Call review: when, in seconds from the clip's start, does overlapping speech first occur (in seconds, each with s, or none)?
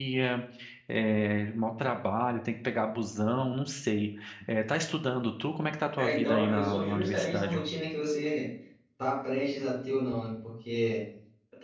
6.0 s